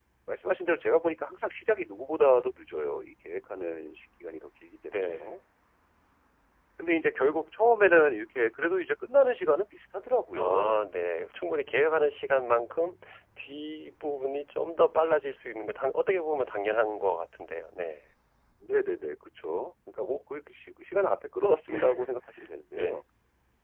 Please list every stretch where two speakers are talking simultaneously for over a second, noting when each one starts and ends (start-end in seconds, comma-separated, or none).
none